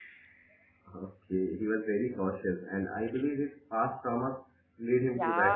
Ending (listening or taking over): taking over